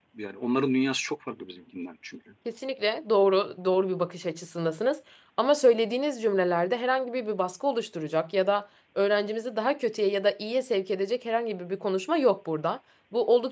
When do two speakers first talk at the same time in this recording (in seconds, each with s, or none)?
none